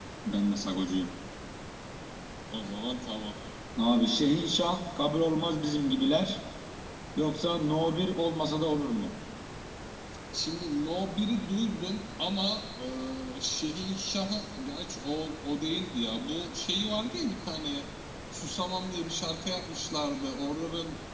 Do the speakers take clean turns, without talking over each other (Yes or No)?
Yes